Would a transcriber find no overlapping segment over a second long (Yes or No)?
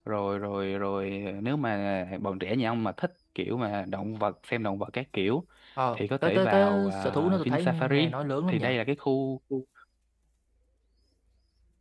No